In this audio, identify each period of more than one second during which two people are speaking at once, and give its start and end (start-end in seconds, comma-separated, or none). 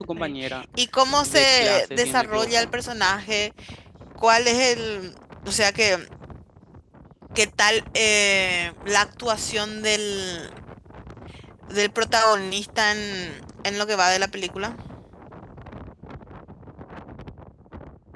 1.2-2.7